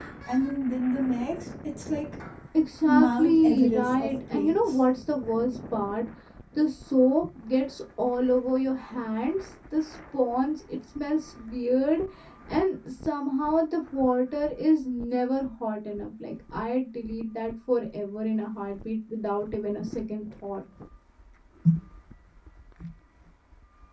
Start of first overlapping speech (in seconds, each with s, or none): 2.9 s